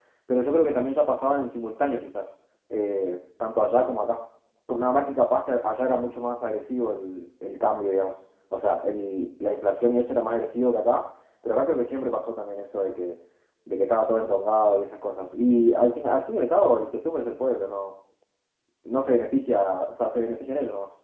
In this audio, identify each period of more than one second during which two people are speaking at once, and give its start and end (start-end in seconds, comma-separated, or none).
none